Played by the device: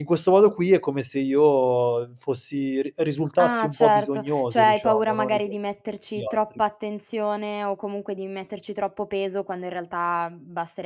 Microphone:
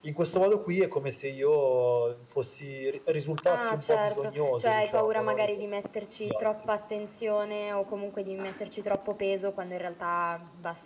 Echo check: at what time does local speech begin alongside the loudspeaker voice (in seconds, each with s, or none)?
none